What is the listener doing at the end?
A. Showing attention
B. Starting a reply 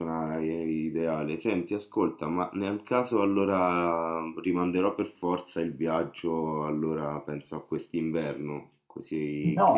B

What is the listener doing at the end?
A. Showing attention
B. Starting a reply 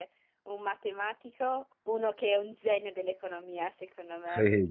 B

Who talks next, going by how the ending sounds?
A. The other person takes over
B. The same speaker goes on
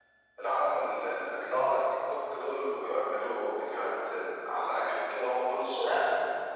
A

